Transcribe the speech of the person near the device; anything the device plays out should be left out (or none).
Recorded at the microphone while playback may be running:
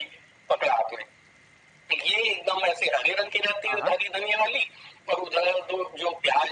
हाँ, हाँ।